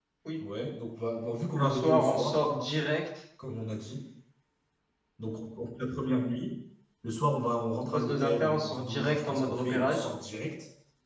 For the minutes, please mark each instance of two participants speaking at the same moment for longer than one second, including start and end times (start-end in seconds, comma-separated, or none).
1.6-2.8, 7.9-10.1